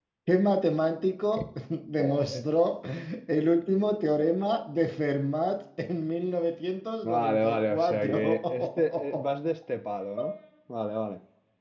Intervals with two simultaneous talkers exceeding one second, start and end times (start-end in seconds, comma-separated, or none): 7.0-9.2